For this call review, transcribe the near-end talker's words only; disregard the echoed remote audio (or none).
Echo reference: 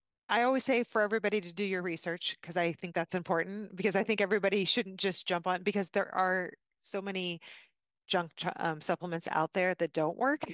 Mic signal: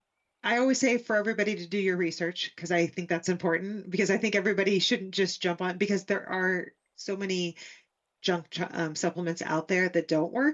none